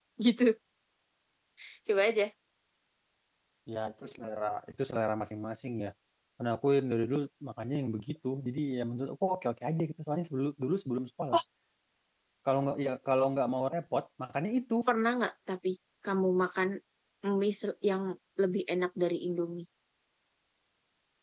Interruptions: none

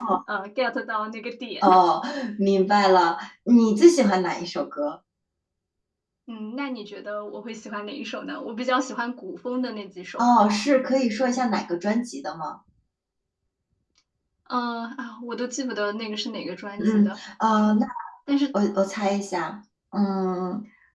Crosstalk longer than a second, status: none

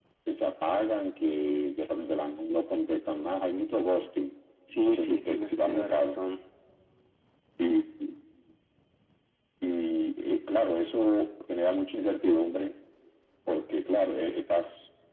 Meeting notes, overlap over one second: present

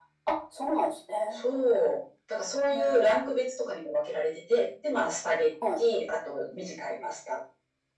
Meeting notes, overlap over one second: none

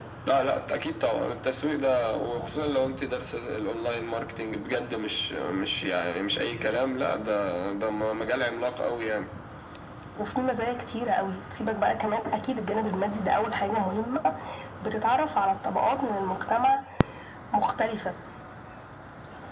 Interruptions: none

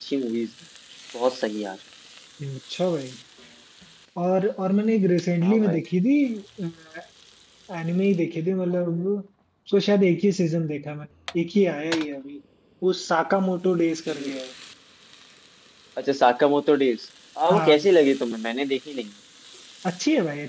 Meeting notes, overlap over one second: none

